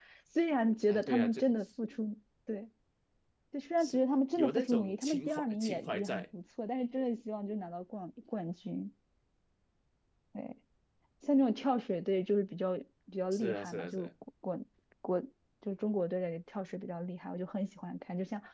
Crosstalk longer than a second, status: present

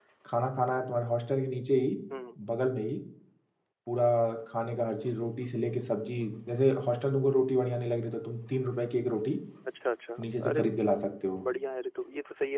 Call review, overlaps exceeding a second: none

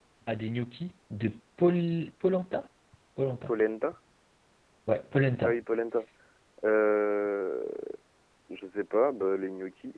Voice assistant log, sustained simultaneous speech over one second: none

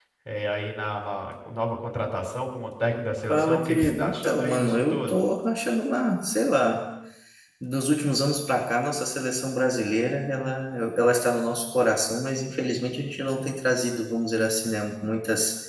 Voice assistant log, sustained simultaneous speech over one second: present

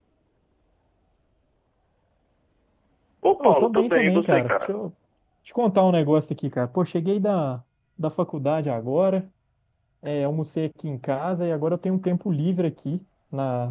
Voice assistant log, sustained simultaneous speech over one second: present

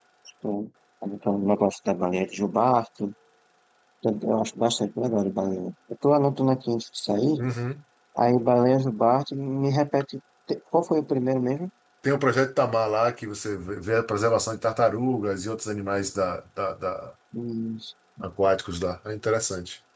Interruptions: none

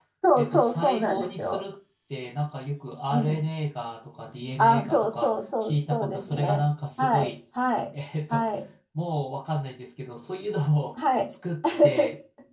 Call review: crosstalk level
present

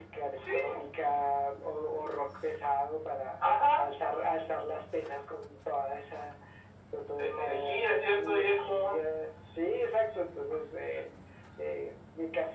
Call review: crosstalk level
present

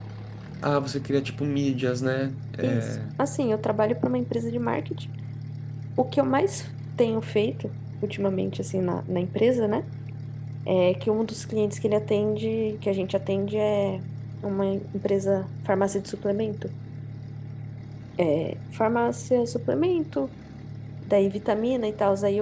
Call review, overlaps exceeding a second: none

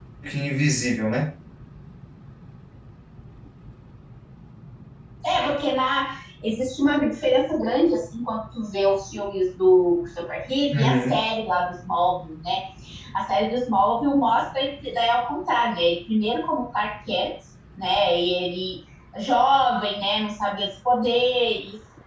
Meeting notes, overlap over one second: none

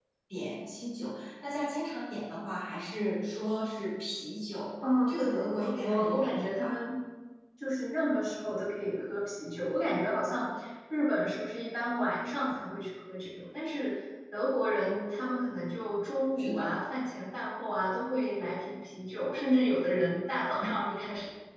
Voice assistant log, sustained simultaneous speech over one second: present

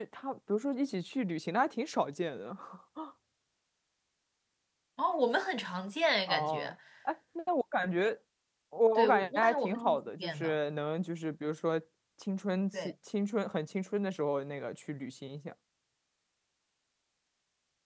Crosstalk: present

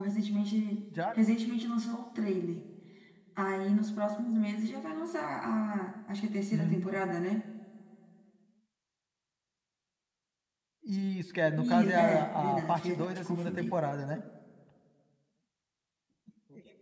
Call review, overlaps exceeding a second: present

